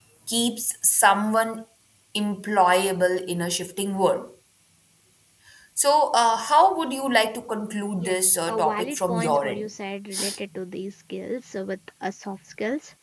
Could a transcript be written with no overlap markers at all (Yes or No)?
No